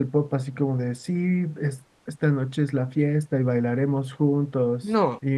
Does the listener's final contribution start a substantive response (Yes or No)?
No